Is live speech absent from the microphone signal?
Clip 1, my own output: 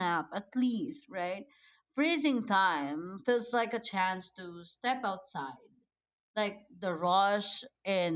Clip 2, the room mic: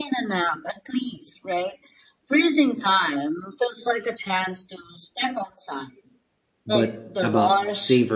No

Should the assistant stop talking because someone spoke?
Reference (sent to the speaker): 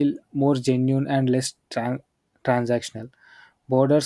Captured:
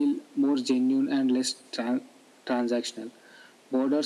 No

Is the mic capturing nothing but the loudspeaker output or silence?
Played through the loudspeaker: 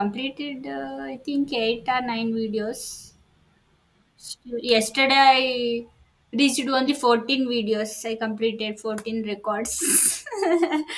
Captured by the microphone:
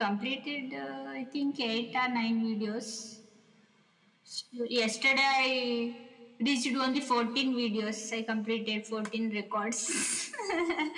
Yes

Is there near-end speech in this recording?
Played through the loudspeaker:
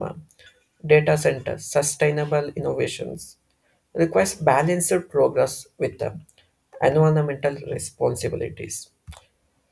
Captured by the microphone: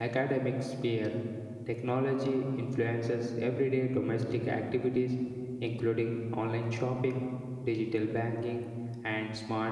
Yes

